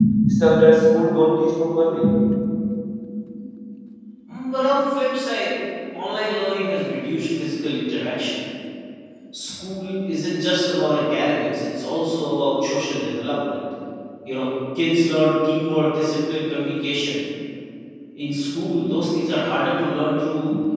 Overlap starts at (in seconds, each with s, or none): none